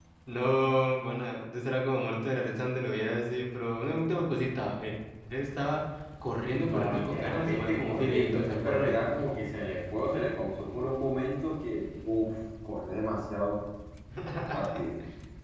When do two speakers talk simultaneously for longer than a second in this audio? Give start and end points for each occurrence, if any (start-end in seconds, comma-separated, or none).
6.6-9.0